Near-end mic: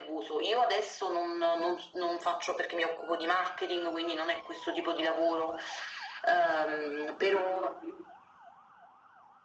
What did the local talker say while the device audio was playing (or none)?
none